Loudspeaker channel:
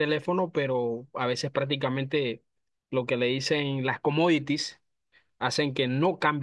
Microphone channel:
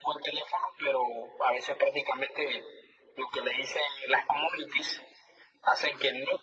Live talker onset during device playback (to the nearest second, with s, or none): none